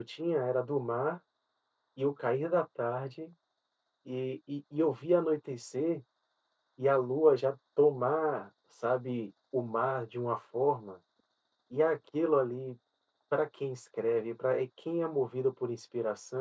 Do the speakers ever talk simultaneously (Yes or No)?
No